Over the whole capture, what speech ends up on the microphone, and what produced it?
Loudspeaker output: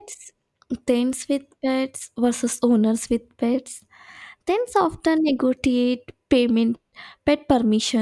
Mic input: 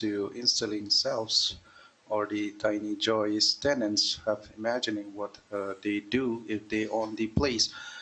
user only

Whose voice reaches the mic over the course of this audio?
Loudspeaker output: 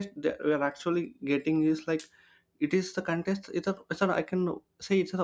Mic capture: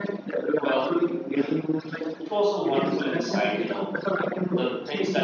both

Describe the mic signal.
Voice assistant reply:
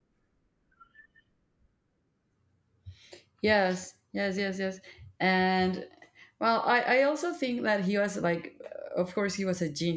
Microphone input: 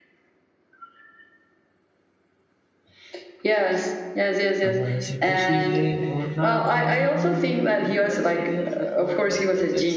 both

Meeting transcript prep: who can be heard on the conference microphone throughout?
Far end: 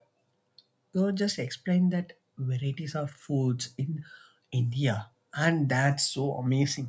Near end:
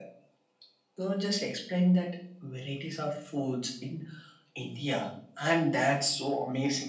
echo only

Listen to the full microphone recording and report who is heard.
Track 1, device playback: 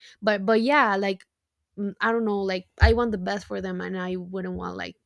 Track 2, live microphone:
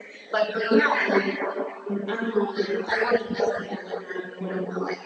echo only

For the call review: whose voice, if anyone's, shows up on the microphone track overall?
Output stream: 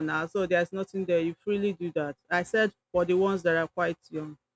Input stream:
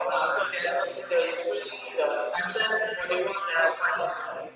echo only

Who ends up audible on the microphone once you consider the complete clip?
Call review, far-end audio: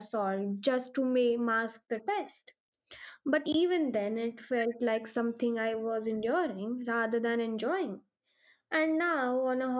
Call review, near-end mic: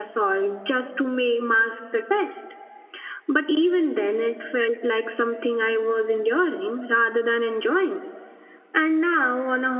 echo only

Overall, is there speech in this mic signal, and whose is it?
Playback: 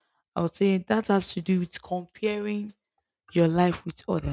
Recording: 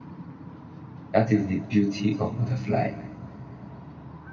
user only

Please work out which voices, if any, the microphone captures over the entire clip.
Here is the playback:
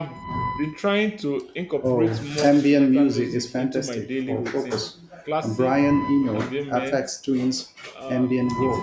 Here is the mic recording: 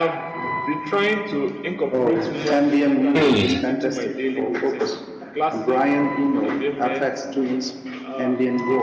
both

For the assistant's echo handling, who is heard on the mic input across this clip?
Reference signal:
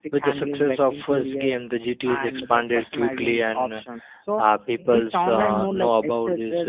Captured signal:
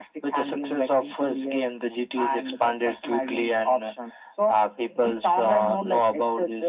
echo only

